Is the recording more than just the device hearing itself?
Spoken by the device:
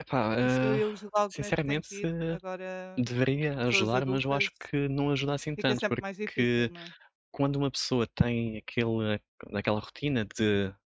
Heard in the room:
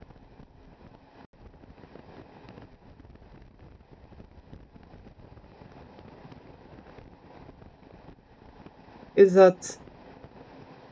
Yes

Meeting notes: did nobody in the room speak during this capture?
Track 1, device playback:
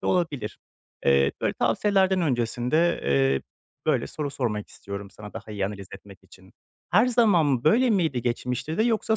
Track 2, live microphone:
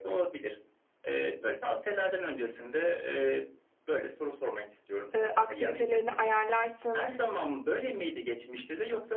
No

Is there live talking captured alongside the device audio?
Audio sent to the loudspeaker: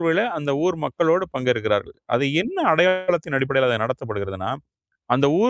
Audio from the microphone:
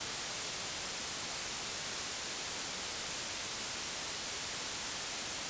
No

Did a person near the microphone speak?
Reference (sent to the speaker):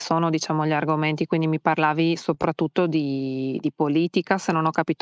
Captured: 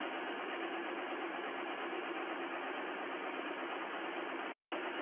No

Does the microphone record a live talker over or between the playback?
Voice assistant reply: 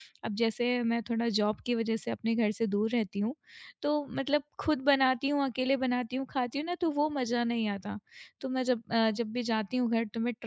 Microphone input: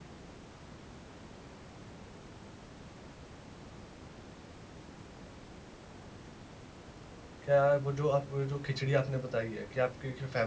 Yes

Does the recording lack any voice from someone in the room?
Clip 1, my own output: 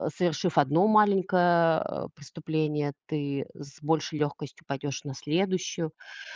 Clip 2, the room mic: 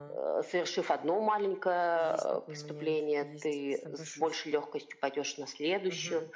No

